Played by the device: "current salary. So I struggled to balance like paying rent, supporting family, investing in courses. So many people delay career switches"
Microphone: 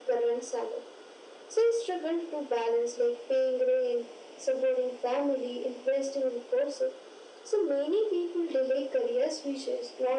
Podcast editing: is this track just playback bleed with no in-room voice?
Yes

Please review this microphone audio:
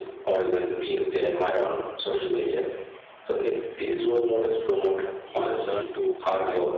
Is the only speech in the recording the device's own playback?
No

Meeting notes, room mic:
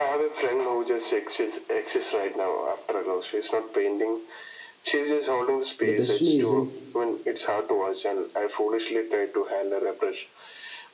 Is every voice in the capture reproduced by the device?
No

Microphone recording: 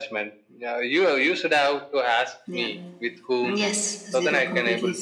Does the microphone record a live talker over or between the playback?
Yes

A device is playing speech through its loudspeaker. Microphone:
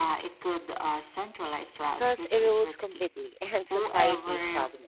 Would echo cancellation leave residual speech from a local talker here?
Yes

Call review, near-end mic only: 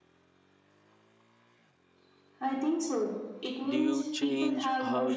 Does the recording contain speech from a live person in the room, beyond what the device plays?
Yes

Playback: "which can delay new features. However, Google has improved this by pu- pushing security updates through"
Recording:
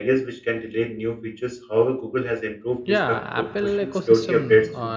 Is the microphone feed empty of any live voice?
No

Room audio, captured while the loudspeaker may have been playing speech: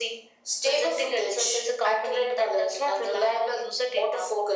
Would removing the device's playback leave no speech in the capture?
Yes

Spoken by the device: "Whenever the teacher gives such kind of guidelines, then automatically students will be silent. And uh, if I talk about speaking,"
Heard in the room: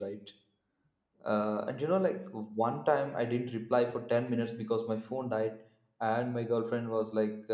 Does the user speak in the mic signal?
Yes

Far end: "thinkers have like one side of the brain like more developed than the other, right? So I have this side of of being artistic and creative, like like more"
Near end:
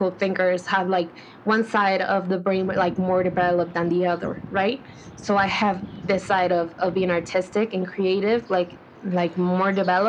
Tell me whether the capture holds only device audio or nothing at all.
Yes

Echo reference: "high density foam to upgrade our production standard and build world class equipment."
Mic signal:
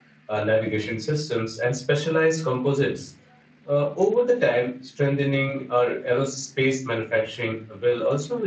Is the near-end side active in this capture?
Yes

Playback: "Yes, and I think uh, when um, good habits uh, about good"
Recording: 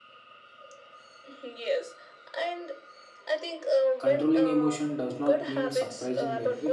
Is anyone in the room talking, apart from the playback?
Yes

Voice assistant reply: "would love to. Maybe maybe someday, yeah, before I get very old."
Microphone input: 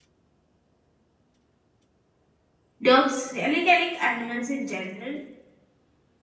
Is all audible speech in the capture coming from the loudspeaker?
No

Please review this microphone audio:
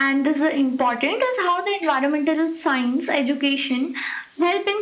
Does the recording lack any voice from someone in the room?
Yes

